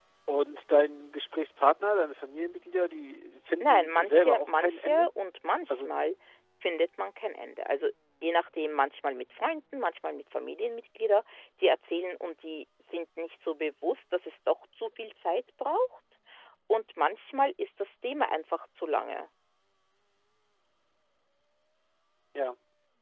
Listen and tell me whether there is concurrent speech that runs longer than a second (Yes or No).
Yes